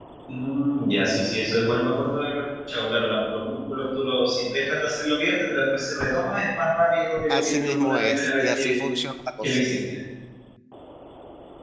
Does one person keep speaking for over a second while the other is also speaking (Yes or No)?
Yes